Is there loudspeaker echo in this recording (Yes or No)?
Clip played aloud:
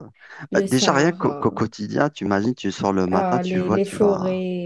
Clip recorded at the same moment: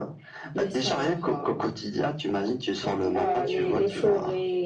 Yes